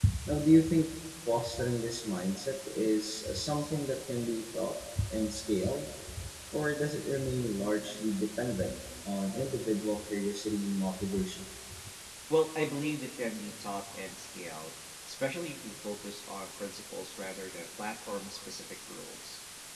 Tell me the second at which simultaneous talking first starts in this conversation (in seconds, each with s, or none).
none